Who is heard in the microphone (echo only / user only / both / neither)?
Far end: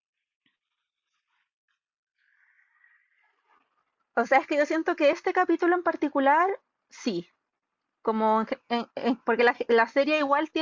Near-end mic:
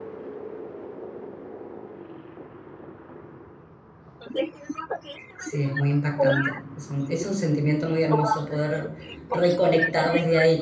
both